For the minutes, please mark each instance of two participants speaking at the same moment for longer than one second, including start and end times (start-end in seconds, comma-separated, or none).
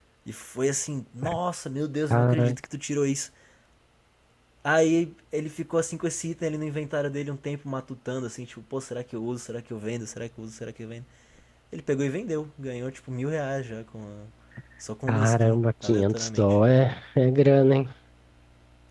15.1-16.6